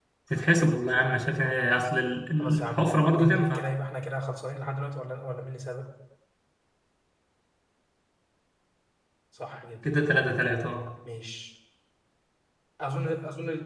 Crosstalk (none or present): present